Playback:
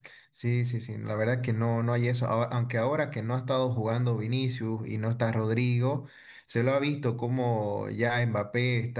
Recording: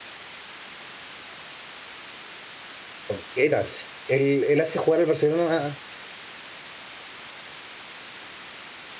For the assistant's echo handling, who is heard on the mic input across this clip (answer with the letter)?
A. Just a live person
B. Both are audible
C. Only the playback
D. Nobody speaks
A